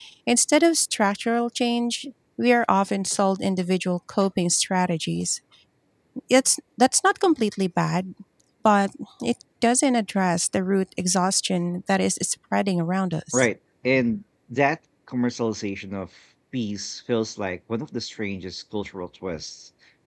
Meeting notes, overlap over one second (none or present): none